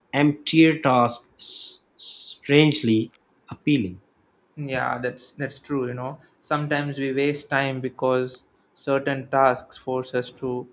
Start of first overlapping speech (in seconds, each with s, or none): none